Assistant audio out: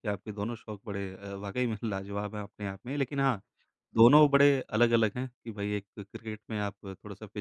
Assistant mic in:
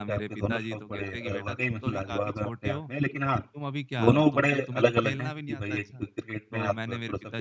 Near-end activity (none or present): present